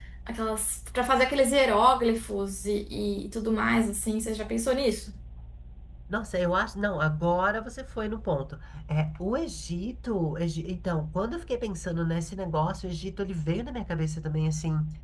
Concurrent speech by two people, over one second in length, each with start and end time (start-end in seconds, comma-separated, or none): none